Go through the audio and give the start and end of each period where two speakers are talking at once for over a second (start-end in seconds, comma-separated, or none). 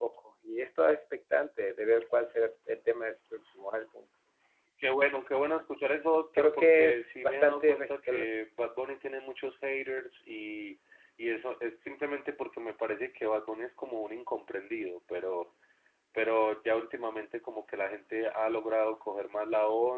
6.4-7.8